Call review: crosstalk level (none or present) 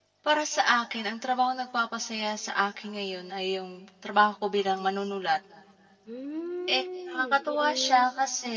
present